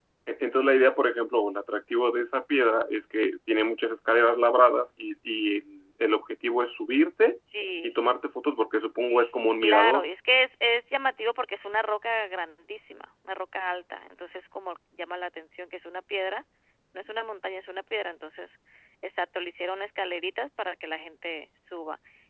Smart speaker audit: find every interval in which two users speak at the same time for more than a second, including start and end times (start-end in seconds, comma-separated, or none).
none